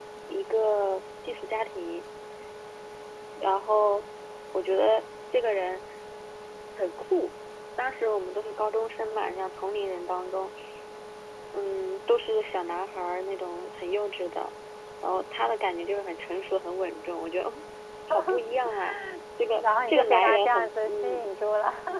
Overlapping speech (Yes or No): Yes